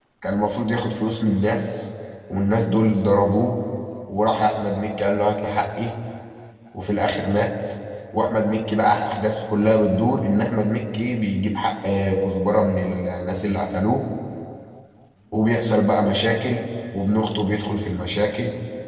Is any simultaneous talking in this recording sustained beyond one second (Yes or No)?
No